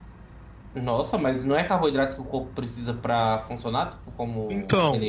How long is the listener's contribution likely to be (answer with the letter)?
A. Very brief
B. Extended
B